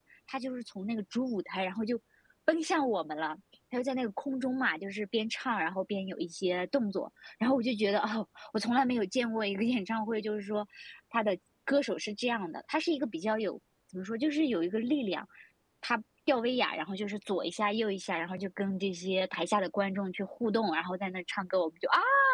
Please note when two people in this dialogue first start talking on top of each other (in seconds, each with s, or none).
none